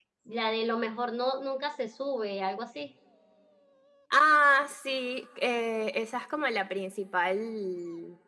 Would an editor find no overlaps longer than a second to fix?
Yes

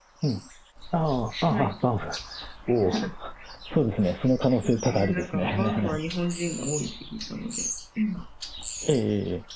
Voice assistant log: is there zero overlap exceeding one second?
No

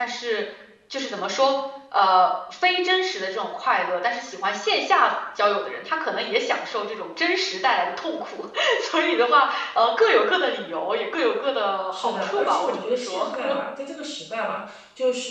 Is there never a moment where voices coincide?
No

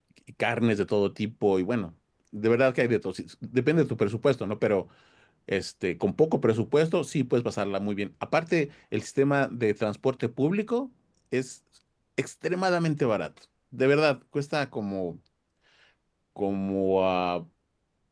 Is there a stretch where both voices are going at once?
No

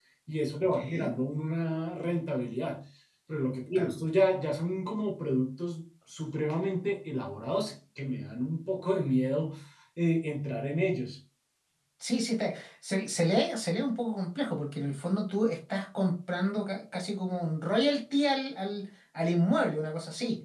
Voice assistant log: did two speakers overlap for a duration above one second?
No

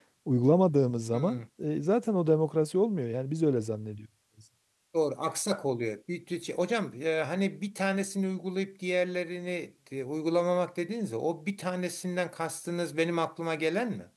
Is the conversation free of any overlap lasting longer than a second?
Yes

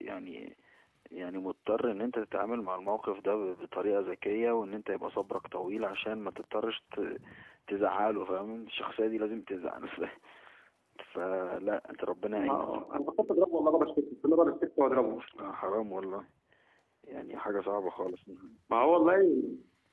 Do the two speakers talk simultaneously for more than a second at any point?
No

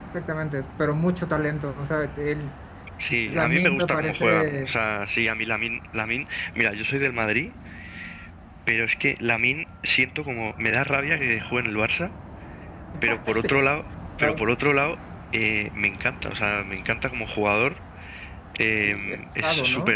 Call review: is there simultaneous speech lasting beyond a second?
Yes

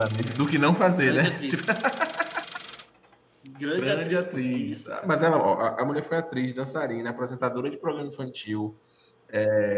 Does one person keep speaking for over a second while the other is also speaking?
Yes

